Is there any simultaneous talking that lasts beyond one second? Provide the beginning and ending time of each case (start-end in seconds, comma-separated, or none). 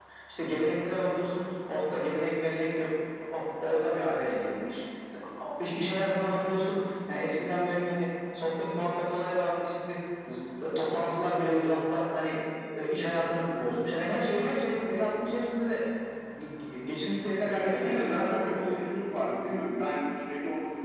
17.4-18.8